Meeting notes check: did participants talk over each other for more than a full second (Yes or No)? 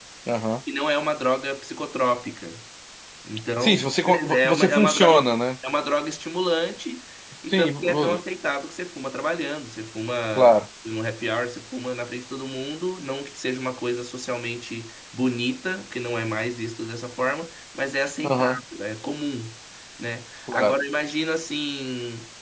Yes